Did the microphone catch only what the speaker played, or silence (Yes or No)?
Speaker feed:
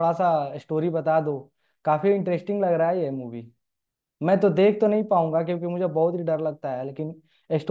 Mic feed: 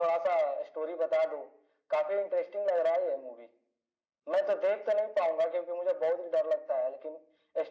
Yes